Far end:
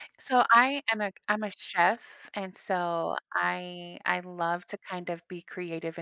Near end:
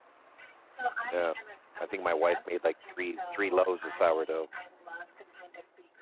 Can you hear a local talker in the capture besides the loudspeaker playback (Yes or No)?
Yes